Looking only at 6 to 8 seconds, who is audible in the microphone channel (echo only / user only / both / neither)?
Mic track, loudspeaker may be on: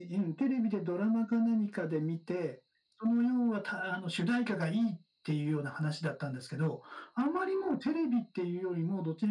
echo only